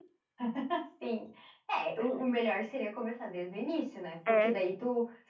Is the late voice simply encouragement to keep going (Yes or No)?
Yes